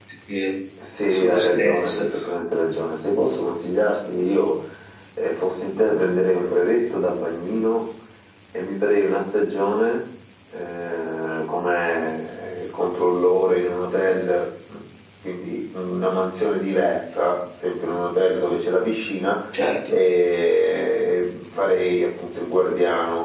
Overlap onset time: 1.1 s

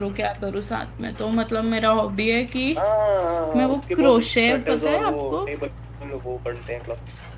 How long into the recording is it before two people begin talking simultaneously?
3.5 s

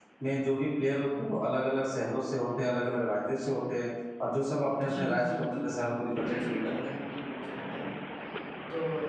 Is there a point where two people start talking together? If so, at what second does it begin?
4.7 s

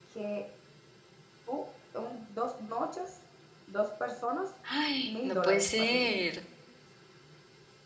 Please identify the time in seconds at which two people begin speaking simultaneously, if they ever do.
5.0 s

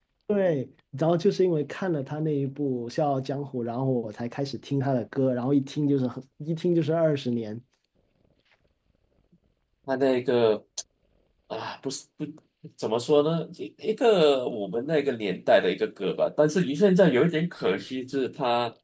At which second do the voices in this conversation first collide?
none

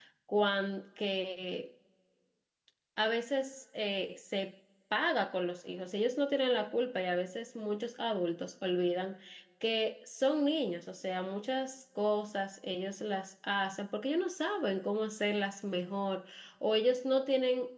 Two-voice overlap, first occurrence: none

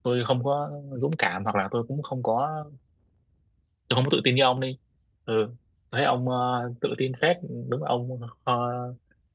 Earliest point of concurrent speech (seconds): none

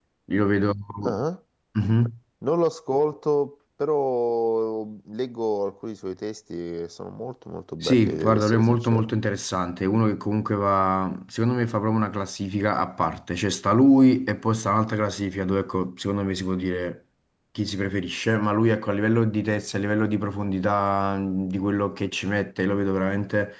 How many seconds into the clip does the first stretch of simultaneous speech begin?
7.8 s

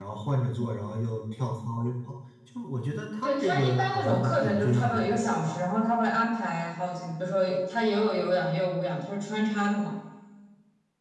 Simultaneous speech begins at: 3.2 s

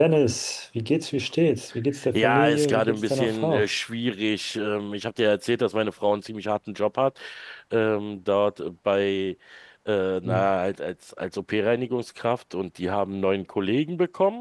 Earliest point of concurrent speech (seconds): 2.1 s

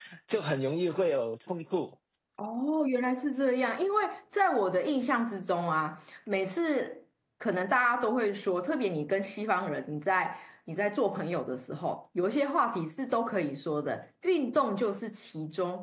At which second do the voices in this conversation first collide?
none

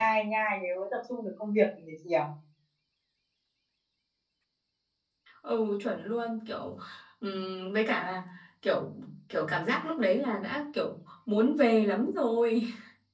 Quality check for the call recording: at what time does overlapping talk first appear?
none

